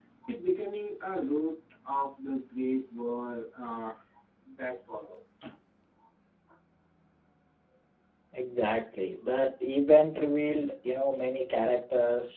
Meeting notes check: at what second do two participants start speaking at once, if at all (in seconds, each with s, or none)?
none